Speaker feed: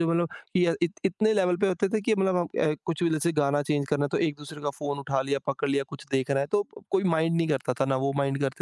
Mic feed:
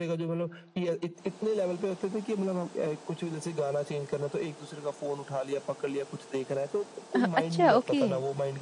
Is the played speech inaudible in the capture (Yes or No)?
No